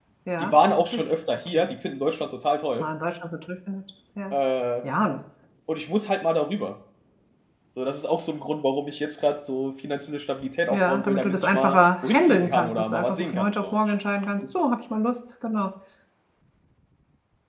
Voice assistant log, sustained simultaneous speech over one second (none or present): present